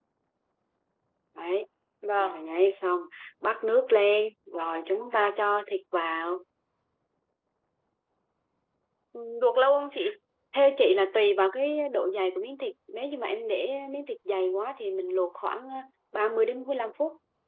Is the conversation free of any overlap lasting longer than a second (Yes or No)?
Yes